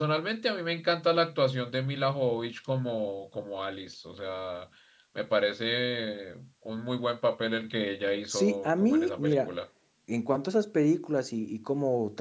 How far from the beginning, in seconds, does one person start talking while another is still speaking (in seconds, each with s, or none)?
8.3 s